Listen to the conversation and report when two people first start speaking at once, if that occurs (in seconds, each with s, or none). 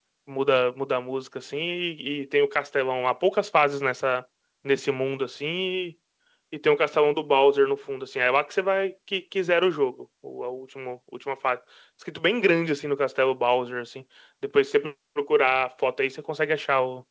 none